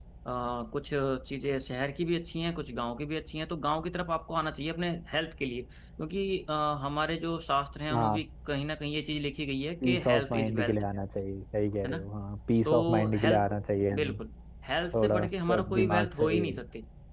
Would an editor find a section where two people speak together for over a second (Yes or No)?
Yes